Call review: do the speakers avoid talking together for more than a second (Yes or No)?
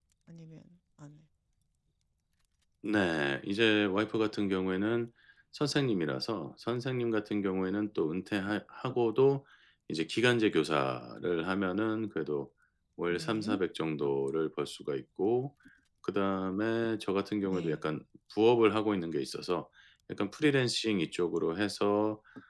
Yes